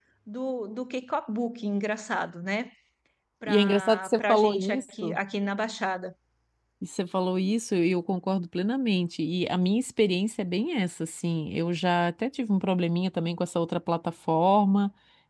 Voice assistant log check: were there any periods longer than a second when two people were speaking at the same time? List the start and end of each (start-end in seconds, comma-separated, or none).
3.5-5.2